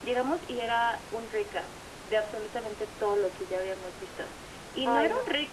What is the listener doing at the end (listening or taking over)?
listening